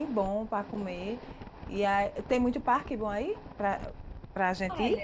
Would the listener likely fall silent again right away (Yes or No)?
No